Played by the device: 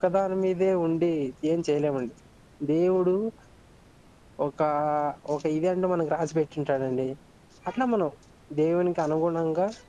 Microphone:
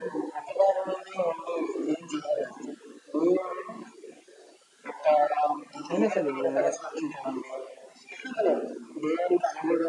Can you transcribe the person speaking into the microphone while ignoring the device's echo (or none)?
అయినా సరే ఇప్పుడు మనం